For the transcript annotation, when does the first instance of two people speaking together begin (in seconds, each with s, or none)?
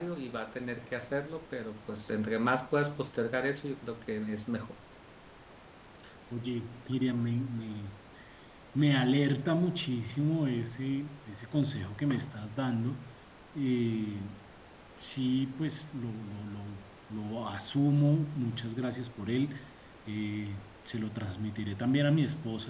none